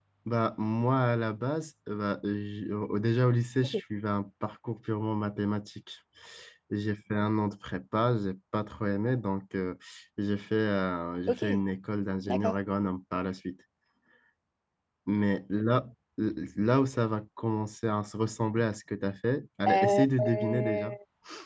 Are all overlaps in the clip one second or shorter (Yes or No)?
No